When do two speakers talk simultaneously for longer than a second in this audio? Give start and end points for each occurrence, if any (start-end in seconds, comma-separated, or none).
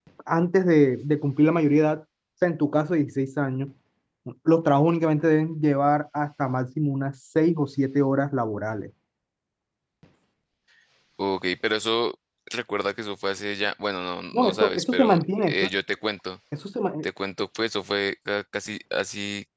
14.3-15.7